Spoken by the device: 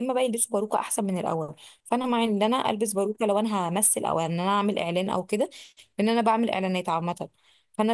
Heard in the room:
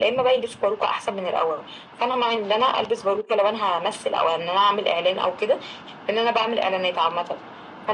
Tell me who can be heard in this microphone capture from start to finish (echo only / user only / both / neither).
echo only